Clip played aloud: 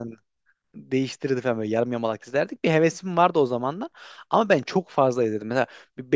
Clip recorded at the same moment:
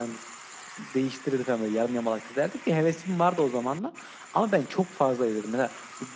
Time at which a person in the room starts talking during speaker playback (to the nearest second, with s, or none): none